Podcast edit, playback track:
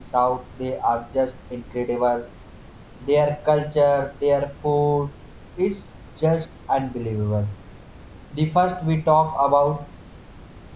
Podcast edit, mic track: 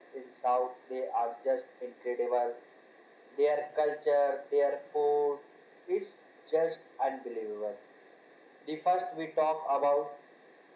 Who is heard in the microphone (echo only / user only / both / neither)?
echo only